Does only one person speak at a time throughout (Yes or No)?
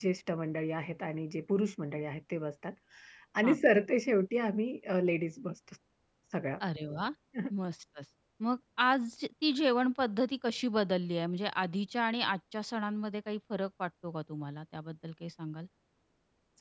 Yes